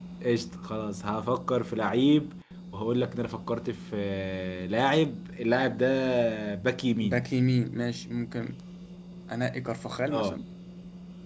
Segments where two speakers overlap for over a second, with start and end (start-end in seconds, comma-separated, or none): none